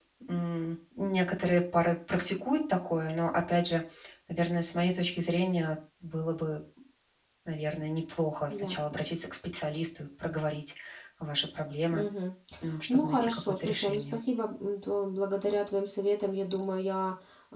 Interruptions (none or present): present